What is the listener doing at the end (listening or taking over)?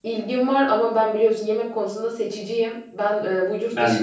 listening